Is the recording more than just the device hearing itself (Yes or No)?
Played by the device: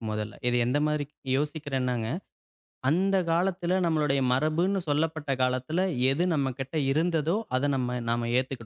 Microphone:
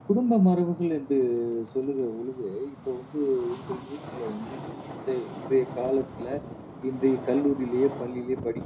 Yes